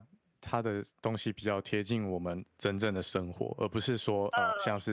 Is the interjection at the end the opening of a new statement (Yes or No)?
No